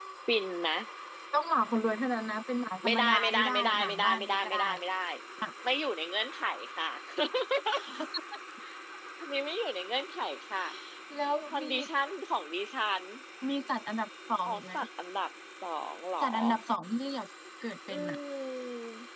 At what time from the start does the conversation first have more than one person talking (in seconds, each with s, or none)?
2.8 s